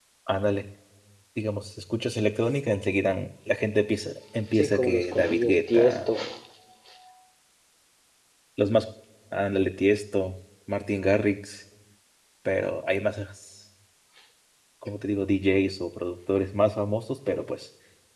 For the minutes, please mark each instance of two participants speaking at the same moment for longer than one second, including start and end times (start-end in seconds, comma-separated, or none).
4.5-6.1